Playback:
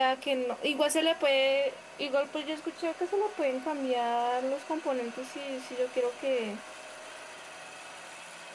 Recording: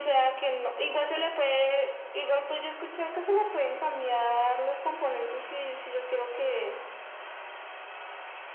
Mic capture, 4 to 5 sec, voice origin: echo only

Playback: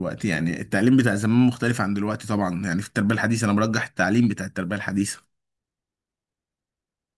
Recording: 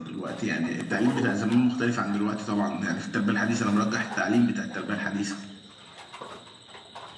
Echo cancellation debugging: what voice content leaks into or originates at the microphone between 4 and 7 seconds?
echo only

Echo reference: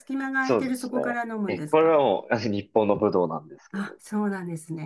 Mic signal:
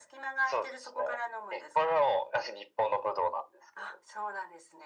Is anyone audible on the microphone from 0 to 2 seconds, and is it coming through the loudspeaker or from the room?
echo only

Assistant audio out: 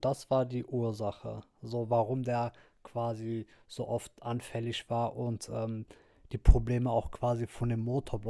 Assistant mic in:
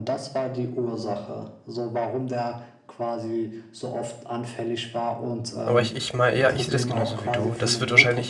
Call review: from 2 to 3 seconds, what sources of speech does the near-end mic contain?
echo only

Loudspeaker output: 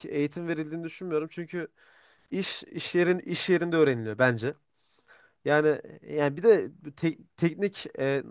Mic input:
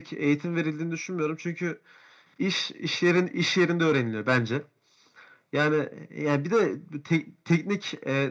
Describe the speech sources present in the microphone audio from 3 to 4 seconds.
echo only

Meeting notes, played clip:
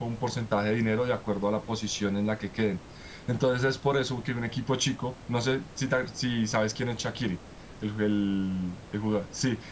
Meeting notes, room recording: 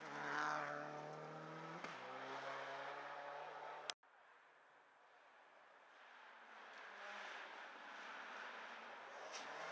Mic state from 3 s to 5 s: neither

